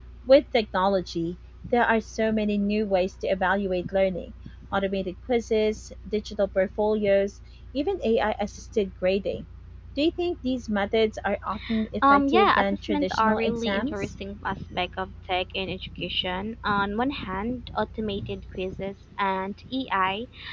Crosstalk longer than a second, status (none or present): present